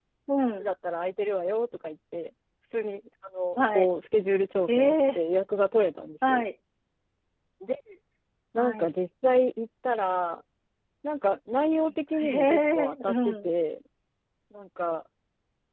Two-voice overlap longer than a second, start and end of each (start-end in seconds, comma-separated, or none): 12.2-13.5